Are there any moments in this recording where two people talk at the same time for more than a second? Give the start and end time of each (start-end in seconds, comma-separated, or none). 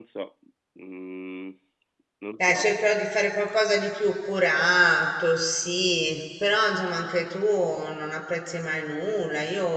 none